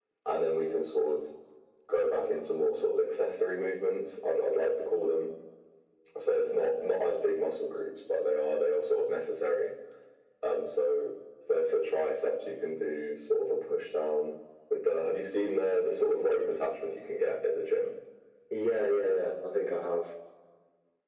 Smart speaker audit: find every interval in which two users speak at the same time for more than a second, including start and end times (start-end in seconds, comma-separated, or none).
none